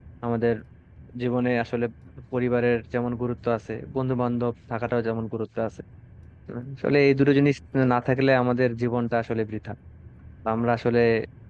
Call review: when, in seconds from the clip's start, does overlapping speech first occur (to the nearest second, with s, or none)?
none